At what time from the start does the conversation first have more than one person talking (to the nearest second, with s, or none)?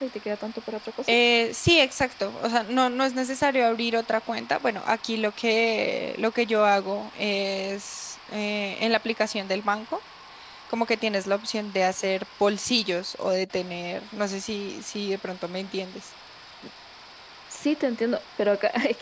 none